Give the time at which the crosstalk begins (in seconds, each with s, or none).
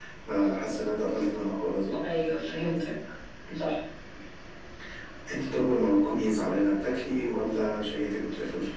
none